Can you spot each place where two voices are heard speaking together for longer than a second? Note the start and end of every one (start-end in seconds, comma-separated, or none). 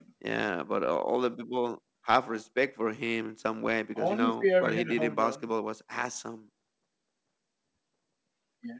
4.0-5.4